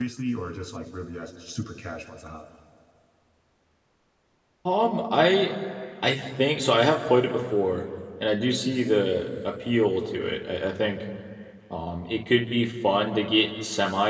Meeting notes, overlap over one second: none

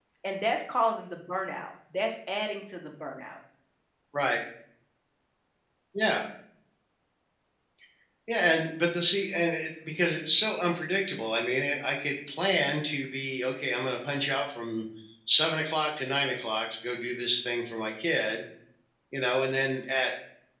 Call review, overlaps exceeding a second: none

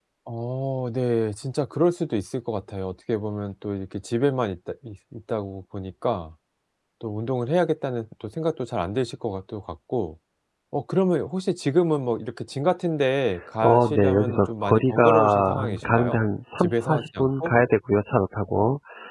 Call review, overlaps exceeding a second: present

